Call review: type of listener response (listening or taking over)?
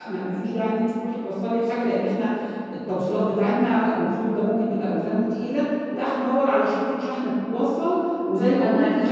taking over